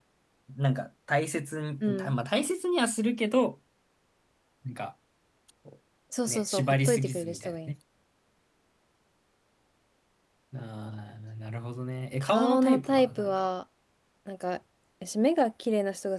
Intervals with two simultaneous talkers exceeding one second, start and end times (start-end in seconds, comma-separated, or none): 6.3-7.7, 12.2-13.5